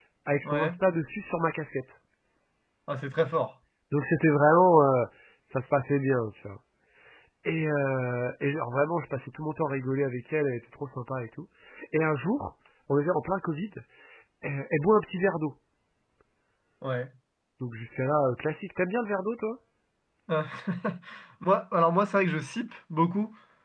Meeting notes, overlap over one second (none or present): none